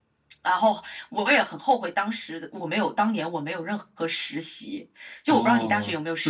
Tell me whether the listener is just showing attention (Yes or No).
No